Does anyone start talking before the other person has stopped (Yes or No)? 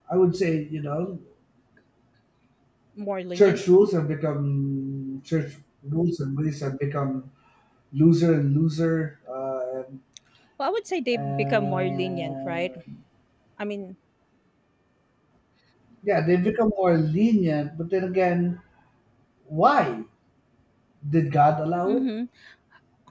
Yes